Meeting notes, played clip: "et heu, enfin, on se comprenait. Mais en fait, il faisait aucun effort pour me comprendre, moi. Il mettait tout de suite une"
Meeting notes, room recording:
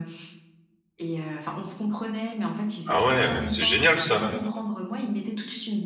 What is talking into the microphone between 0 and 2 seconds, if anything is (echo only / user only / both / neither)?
echo only